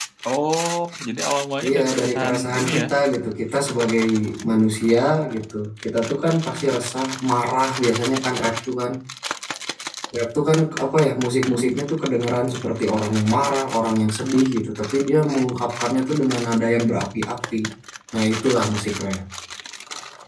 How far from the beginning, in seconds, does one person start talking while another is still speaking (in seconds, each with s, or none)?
1.6 s